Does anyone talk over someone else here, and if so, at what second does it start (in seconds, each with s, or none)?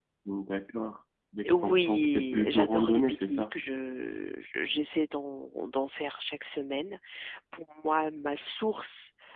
1.4 s